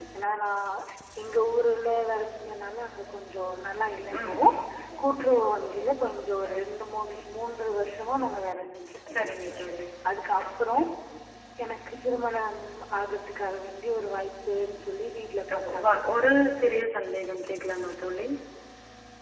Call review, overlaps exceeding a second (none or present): none